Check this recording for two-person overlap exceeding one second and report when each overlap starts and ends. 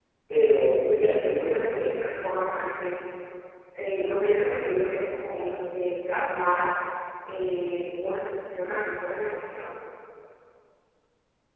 1.0-2.2

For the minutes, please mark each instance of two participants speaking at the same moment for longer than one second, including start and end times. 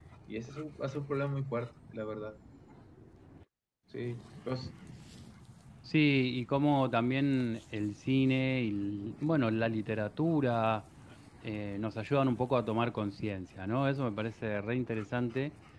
none

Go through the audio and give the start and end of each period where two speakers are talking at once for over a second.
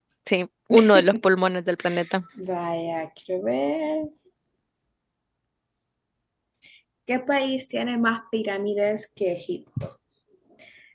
none

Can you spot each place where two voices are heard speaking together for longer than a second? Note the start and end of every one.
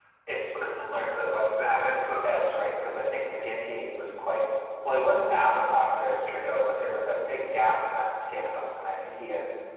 1.0-2.8

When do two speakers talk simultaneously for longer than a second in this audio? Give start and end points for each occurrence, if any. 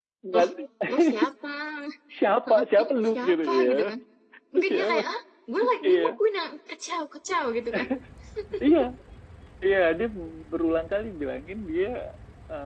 2.5-3.7

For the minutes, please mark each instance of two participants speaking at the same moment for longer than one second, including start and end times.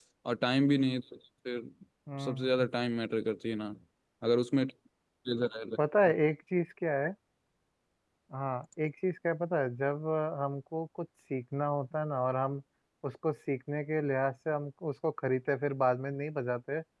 none

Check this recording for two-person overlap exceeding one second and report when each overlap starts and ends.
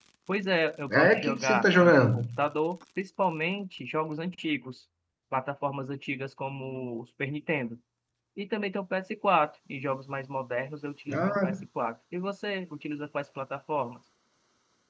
0.9-2.2

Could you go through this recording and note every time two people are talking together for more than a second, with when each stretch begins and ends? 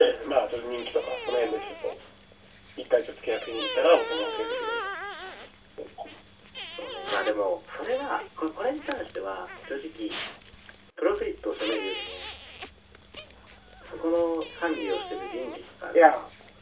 none

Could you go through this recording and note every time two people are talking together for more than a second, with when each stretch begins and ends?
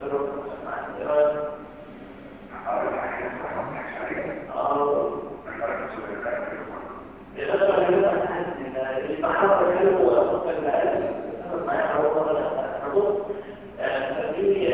none

